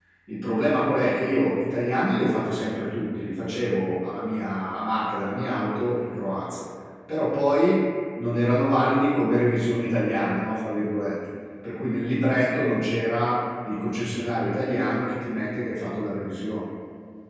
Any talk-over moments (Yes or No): No